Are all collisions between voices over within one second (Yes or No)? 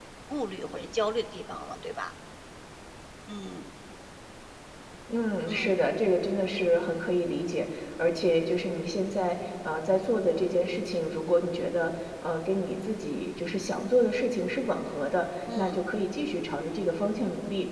Yes